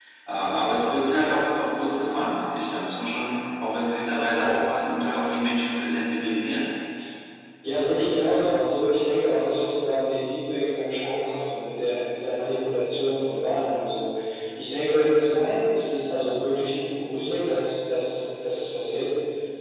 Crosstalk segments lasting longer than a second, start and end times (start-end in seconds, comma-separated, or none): none